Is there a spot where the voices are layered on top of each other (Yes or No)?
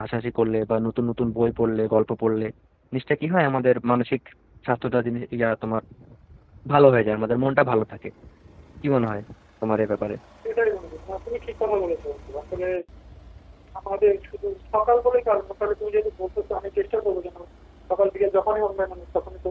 No